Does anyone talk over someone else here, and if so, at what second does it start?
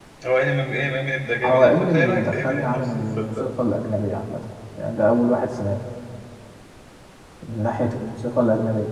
1.4 s

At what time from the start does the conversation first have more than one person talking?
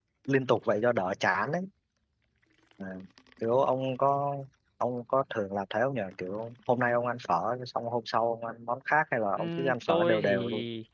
9.4 s

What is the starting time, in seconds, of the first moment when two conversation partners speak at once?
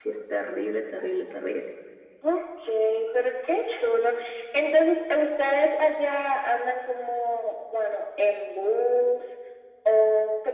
none

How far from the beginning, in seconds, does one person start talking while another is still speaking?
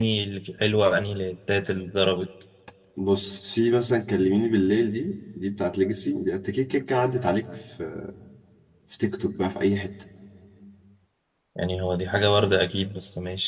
none

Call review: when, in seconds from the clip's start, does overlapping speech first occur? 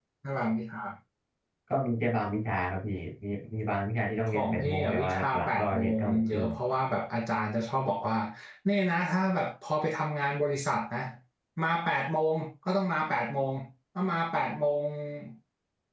4.3 s

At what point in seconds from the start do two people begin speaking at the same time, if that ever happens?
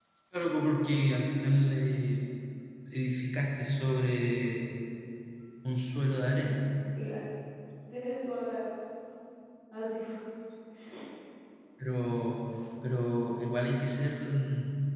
none

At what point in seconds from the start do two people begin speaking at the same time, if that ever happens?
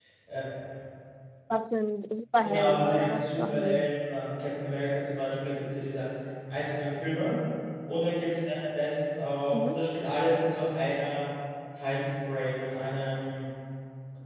2.5 s

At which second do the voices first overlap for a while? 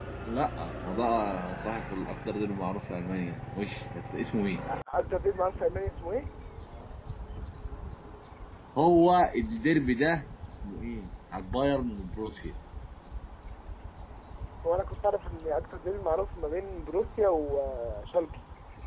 none

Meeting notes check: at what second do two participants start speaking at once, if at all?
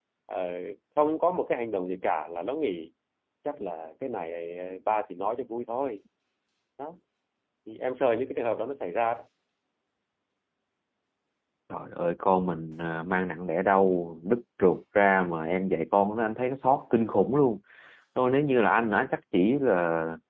none

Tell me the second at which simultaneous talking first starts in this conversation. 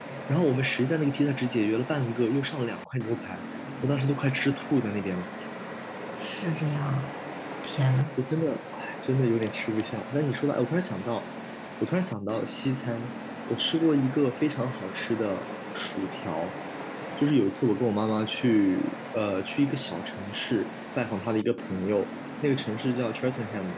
none

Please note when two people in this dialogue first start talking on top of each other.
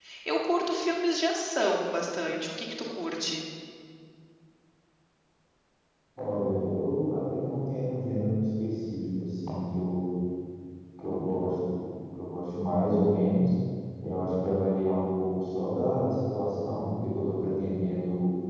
none

